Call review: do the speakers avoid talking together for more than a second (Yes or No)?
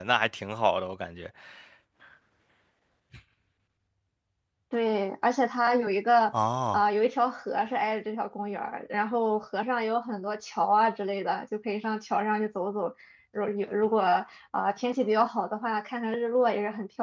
Yes